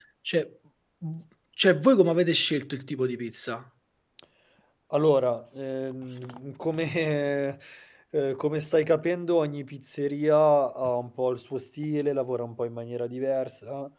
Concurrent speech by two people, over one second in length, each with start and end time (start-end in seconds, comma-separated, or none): none